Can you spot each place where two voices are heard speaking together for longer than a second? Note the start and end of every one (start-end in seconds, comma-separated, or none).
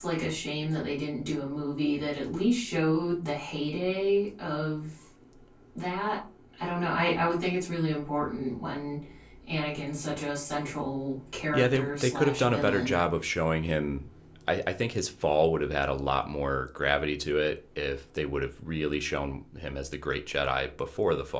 11.5-13.0